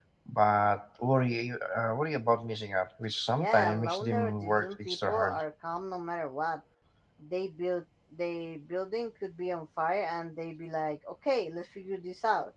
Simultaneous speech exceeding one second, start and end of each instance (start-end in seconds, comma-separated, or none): 3.4-5.4